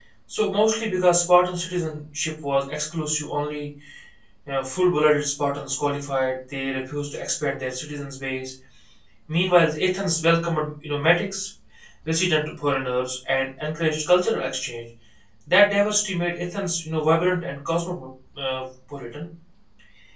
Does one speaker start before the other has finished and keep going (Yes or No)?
No